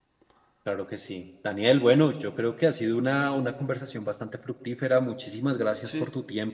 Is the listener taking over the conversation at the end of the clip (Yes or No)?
No